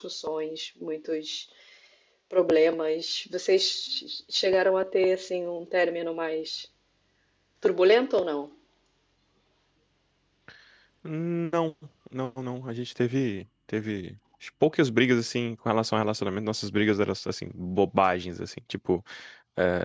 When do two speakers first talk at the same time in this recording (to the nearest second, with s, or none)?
none